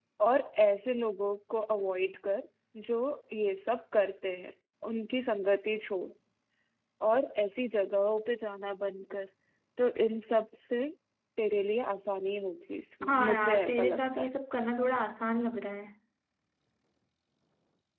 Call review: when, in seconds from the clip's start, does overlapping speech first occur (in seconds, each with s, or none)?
13.0 s